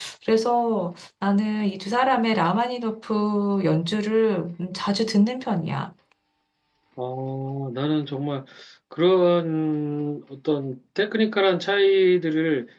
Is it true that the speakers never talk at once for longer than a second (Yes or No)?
Yes